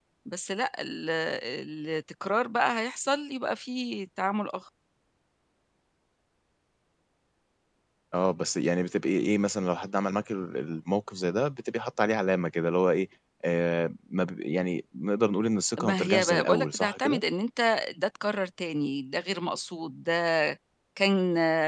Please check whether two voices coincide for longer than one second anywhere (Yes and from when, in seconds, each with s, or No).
Yes, from 15.8 s